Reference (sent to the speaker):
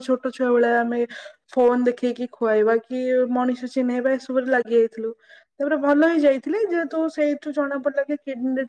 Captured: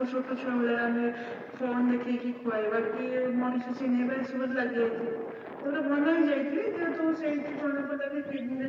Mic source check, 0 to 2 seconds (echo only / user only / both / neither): echo only